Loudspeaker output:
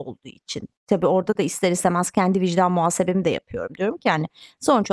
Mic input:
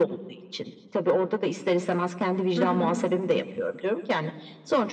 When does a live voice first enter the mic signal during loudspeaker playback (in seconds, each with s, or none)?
2.6 s